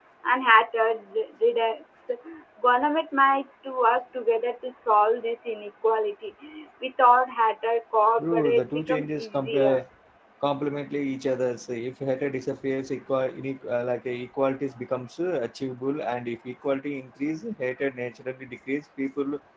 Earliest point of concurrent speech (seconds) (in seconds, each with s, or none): 8.2 s